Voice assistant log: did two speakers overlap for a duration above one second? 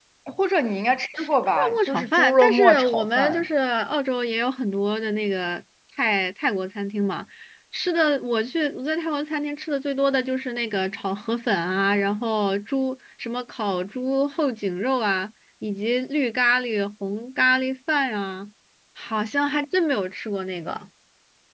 Yes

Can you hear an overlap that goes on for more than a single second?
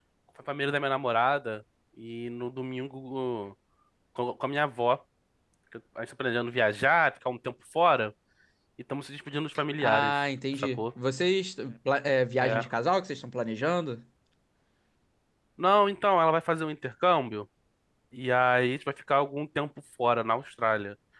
No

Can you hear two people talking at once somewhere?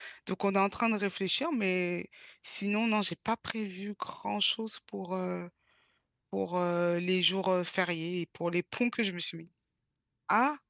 No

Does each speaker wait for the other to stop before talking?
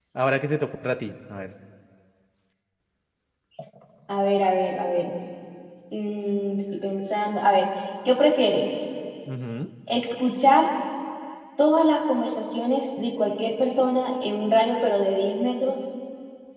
Yes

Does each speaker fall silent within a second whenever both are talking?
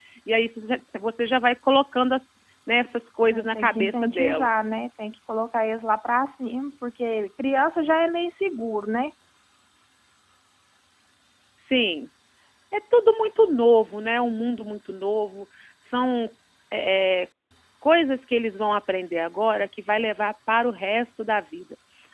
No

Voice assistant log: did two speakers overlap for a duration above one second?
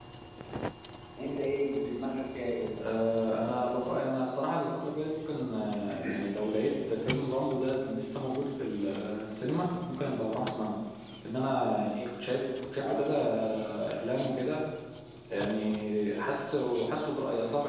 No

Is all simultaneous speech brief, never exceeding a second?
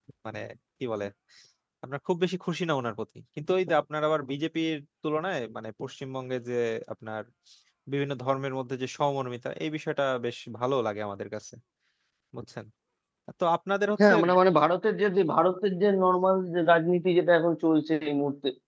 Yes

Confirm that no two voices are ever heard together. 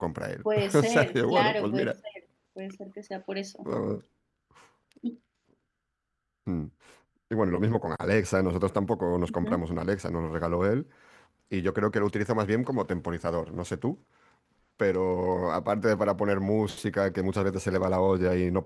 No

